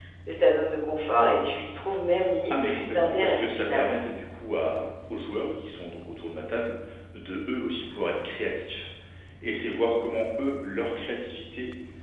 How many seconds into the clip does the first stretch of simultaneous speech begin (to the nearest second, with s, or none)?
3 s